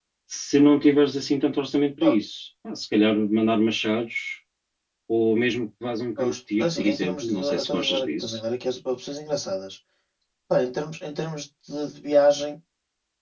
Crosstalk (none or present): present